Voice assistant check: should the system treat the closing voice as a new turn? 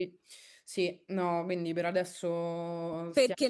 Yes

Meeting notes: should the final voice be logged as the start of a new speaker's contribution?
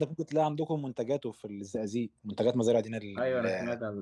Yes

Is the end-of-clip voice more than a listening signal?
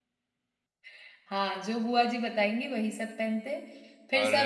No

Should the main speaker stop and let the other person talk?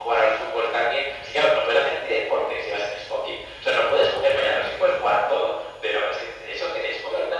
No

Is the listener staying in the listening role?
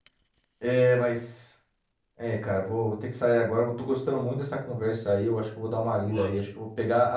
Yes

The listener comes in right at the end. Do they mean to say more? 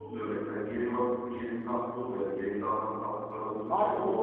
Yes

